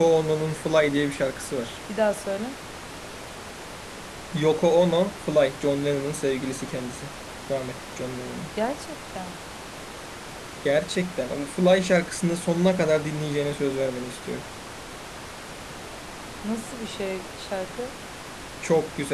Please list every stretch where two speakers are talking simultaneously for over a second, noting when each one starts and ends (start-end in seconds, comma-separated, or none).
none